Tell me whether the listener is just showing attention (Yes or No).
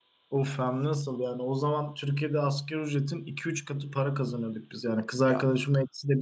Yes